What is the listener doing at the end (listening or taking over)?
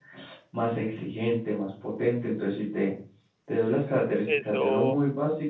listening